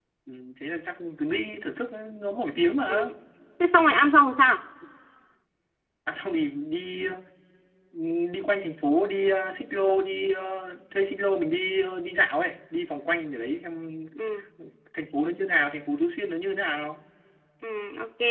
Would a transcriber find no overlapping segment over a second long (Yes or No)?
Yes